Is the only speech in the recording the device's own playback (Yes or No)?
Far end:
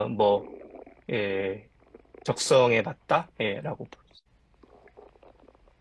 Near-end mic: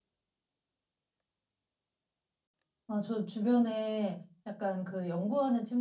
No